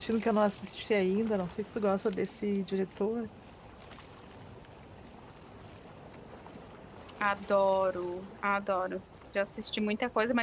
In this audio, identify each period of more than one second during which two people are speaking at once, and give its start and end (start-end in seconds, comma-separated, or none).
none